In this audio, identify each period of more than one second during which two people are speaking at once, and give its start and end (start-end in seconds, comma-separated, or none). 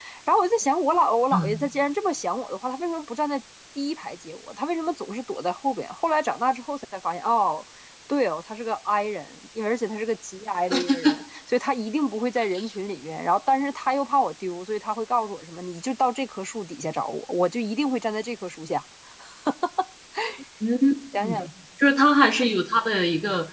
none